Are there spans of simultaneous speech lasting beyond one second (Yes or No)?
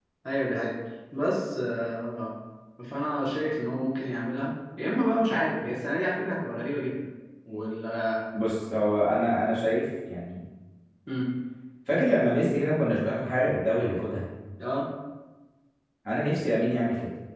No